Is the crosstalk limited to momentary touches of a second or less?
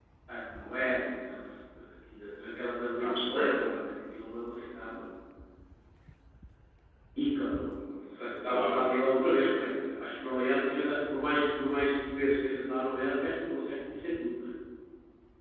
Yes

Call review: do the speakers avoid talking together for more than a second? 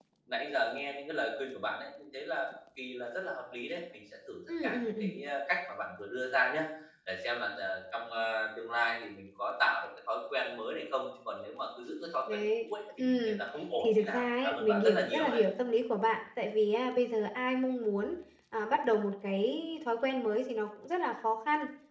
No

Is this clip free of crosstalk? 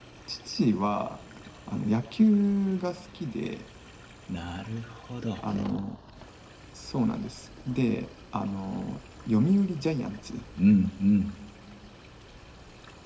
Yes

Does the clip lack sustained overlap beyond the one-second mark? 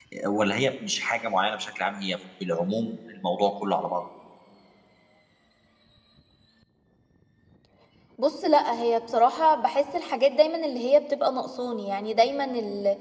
Yes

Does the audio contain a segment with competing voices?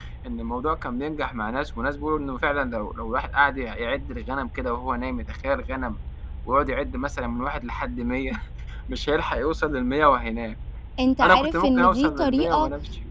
Yes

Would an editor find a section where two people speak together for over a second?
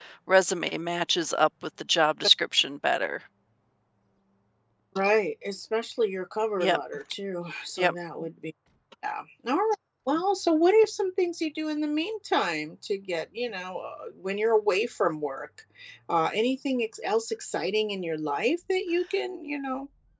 No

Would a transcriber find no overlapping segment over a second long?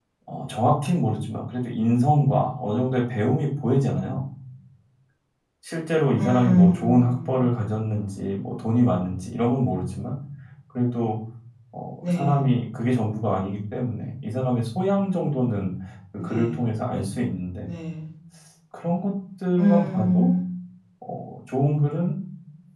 No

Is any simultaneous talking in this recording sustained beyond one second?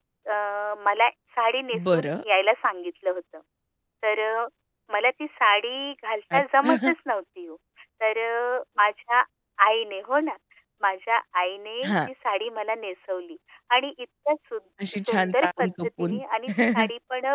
Yes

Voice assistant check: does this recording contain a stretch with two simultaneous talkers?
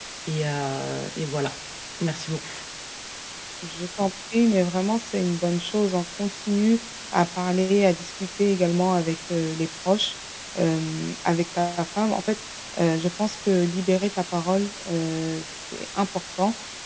No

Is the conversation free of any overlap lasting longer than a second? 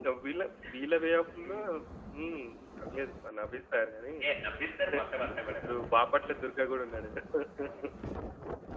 Yes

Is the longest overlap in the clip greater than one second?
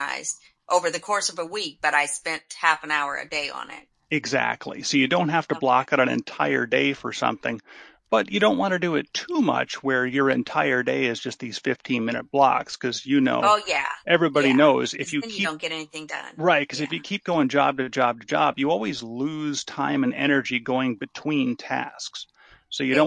No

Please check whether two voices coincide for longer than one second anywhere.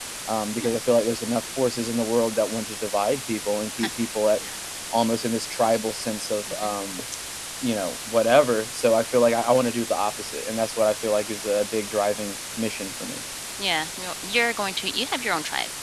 No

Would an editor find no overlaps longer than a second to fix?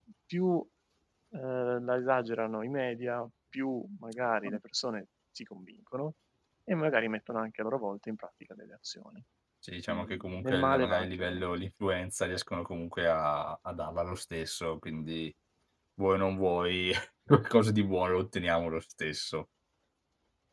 No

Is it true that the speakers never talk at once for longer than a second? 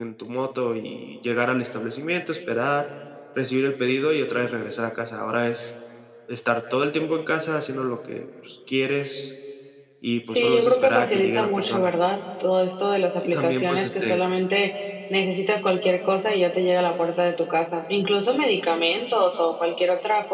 No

